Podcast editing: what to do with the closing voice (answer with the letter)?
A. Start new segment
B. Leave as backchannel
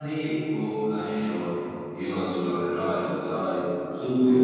A